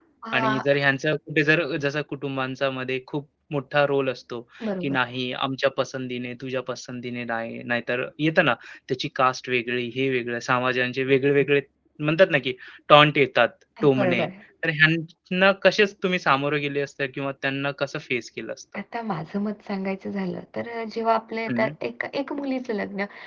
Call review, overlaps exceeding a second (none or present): none